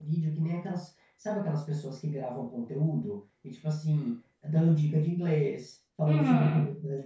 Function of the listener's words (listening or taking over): taking over